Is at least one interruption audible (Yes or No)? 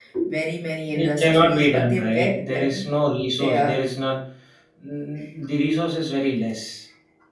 Yes